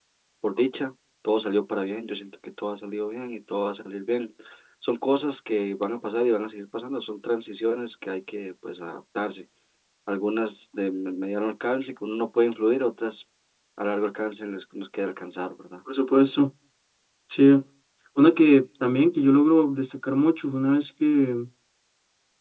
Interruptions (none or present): none